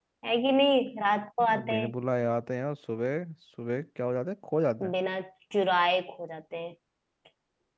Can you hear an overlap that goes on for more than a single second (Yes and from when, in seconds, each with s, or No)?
No